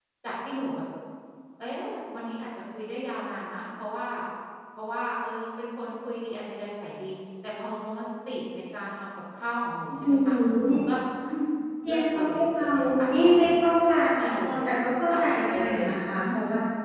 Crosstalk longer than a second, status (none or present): present